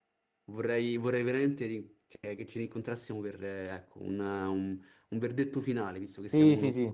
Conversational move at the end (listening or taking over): taking over